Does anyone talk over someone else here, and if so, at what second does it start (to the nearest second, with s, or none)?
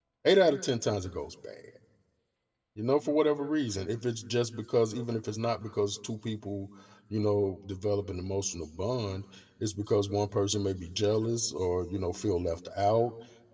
none